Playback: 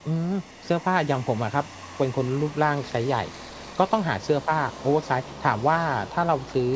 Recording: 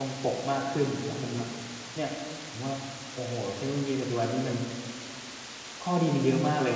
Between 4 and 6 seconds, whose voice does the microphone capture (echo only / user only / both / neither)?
user only